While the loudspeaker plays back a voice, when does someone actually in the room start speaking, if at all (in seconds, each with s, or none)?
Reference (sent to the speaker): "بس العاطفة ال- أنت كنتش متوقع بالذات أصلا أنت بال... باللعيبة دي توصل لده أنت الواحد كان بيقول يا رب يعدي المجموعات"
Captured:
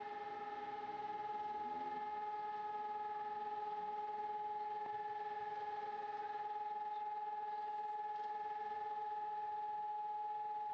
none